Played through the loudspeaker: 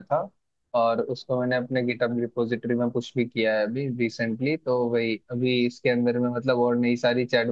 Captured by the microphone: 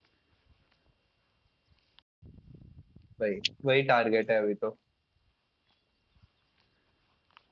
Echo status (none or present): none